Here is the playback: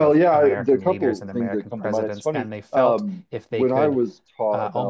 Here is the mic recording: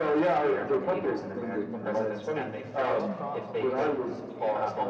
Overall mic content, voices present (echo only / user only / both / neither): both